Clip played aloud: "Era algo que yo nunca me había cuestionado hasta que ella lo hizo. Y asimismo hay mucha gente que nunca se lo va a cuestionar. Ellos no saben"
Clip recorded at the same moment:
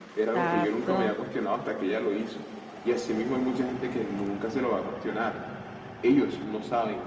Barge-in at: 0.3 s

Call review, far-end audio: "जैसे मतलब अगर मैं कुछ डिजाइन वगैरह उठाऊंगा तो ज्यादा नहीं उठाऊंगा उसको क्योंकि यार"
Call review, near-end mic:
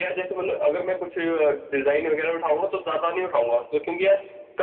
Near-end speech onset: none

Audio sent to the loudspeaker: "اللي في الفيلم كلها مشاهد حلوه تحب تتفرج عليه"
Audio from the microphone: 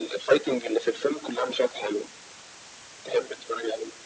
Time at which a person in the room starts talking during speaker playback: none

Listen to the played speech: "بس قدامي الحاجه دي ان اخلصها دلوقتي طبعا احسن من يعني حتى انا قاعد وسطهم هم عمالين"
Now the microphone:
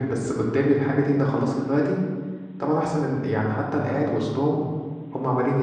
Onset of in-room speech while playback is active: none

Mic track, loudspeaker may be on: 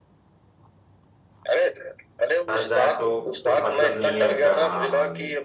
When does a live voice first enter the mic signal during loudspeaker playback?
2.5 s

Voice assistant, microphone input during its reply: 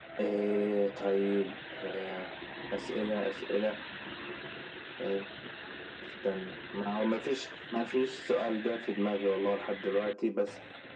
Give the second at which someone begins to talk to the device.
none

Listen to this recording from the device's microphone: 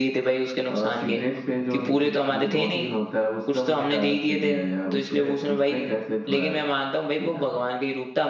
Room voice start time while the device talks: none

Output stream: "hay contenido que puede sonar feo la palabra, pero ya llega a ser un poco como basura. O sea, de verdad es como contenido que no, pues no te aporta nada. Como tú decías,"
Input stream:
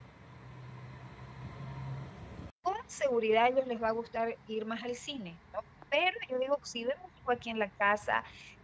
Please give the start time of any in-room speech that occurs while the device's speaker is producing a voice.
2.6 s

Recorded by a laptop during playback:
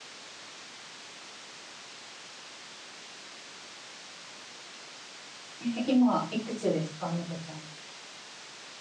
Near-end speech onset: 5.6 s

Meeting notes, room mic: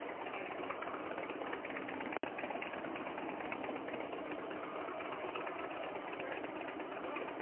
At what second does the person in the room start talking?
none

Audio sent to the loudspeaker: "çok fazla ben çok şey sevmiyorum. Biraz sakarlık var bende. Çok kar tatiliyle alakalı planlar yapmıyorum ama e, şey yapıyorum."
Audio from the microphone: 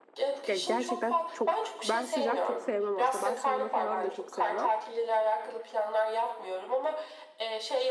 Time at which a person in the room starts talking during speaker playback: 0.5 s

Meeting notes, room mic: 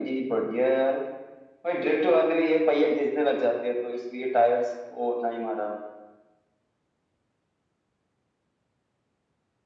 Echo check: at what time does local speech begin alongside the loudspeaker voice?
none

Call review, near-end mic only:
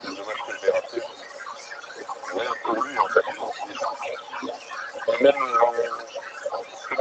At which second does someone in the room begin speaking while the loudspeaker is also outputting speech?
none

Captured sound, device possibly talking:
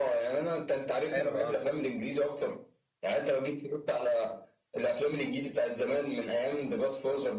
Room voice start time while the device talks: 1.1 s

